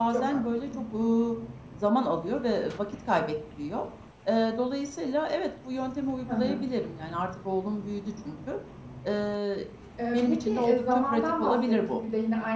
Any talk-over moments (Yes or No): Yes